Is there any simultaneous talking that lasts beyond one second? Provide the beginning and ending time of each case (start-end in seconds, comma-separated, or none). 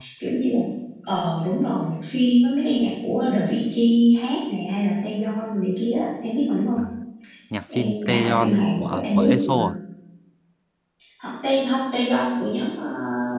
7.8-9.5